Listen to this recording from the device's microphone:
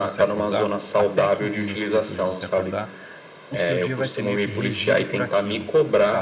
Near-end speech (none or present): present